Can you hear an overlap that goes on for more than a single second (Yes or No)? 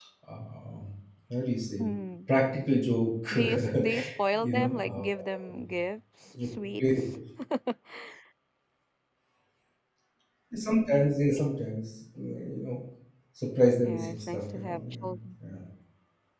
Yes